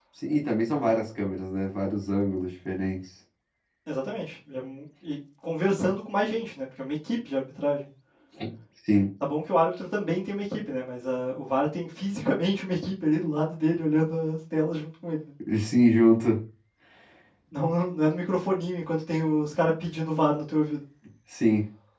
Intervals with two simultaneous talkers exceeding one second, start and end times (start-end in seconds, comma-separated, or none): none